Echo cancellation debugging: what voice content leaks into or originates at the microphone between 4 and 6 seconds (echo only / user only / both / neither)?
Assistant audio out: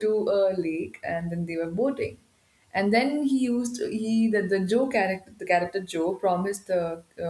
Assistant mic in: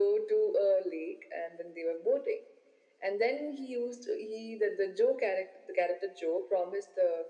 echo only